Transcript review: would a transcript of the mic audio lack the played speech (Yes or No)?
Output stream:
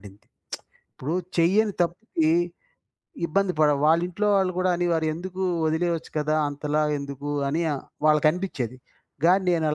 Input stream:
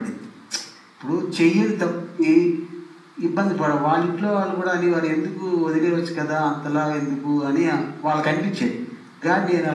No